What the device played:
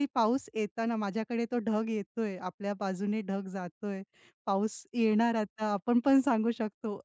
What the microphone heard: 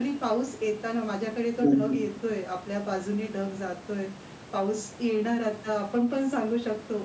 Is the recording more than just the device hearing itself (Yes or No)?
Yes